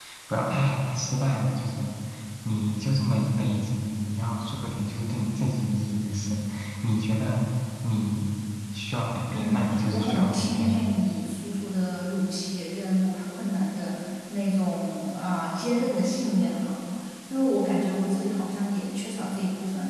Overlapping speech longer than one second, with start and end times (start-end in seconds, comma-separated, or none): 9.3-10.8